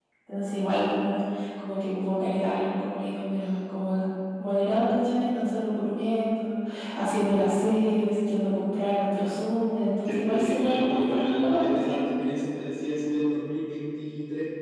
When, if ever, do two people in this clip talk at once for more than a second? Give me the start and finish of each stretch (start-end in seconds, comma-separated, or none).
10.0-12.0